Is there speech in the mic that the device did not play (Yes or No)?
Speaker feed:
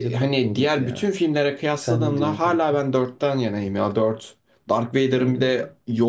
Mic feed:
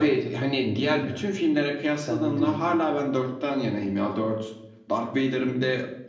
No